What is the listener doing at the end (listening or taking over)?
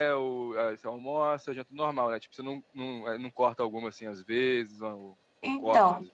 taking over